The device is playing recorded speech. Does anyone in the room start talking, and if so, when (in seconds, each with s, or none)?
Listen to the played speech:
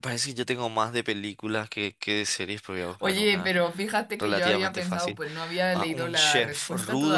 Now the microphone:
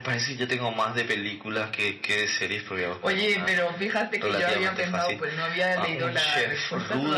none